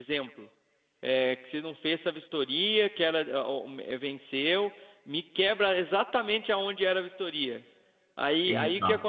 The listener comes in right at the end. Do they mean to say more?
No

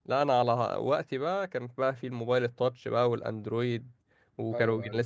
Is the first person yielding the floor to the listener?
No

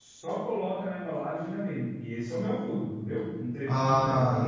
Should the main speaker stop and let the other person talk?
No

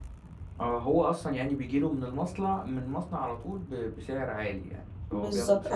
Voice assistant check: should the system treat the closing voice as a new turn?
Yes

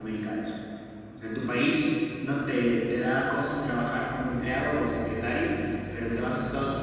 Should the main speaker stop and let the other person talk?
No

